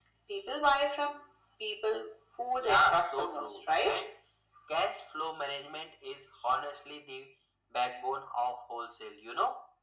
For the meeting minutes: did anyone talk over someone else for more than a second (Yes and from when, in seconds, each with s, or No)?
Yes, from 2.6 s